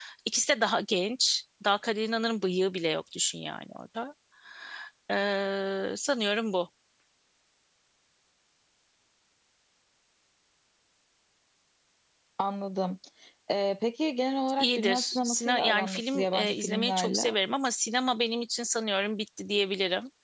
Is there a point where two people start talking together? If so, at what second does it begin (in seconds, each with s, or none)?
14.6 s